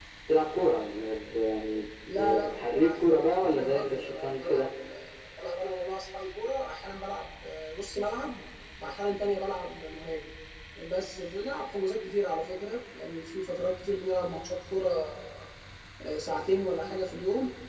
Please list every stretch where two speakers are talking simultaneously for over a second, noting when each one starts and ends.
2.1-4.7

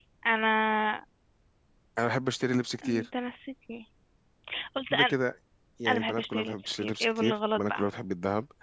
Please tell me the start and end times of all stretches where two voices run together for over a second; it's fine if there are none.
5.9-7.9

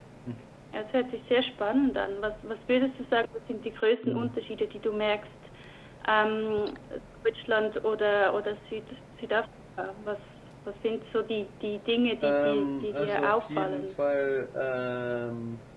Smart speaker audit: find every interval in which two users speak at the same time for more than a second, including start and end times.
12.2-13.9

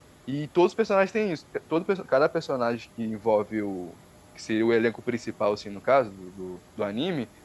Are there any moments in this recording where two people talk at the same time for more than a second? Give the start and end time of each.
none

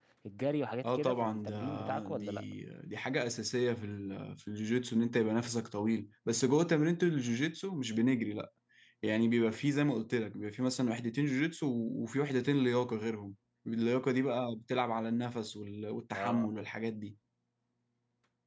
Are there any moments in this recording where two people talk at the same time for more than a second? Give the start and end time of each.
0.8-2.4

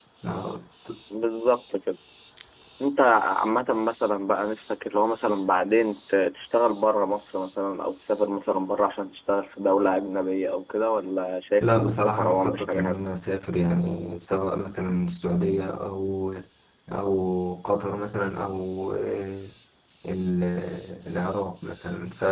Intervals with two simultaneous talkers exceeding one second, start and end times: 11.6-12.9

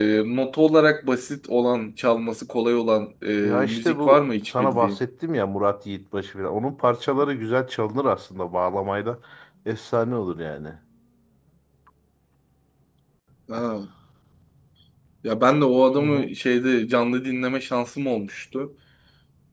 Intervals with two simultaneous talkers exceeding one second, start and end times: 3.6-5.0

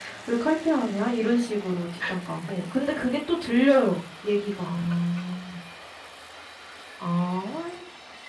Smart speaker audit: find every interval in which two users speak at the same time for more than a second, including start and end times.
none

